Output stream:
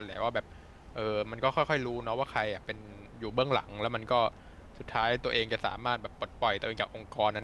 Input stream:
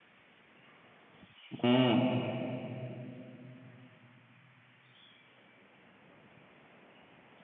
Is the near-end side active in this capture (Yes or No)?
Yes